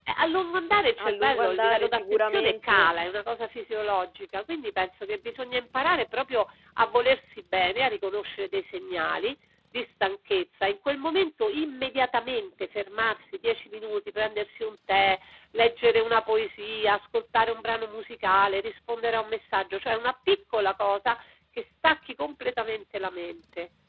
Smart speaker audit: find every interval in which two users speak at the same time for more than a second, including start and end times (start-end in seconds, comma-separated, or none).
1.0-2.8